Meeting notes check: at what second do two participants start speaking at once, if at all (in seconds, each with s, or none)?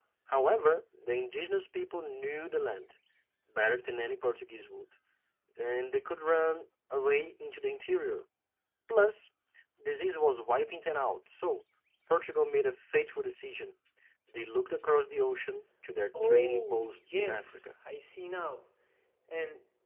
16.1 s